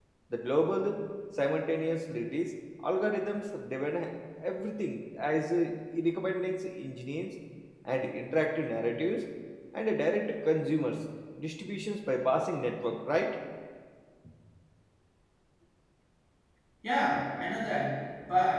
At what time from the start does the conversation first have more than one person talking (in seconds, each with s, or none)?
none